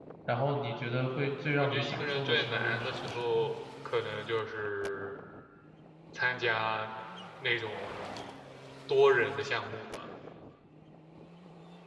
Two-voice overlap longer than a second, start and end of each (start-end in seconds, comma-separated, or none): 1.6-3.5